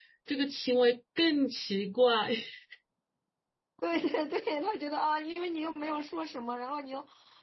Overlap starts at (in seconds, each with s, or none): none